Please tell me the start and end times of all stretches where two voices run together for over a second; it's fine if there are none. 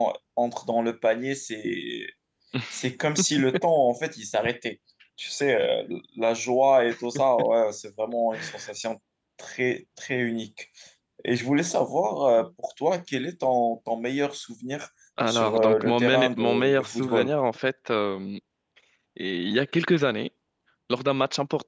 15.3-17.3

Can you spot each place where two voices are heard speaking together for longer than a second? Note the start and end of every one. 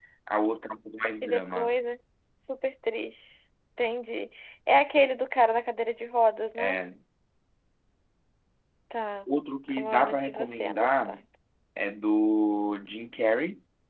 9.7-11.2

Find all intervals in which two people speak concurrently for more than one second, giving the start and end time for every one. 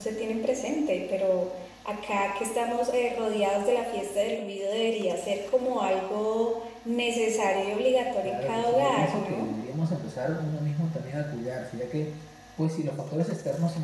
8.2-9.5

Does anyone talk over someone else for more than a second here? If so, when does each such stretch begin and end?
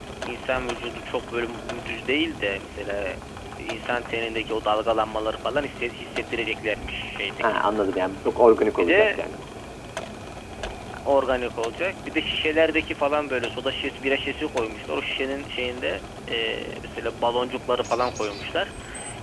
none

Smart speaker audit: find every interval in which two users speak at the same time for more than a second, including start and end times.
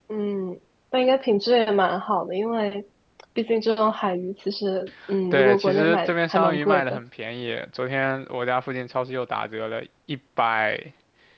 5.3-7.0

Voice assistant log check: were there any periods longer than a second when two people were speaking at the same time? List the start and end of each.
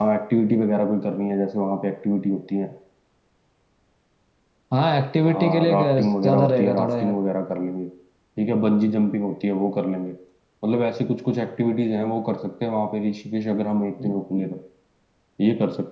5.3-7.1

